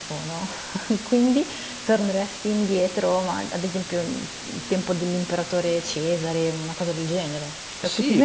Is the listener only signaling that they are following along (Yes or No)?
No